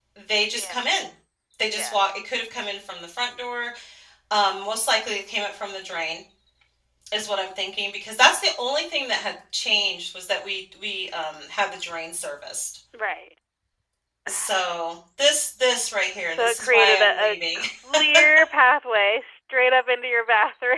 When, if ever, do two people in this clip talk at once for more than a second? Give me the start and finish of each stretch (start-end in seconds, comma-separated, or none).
16.4-17.6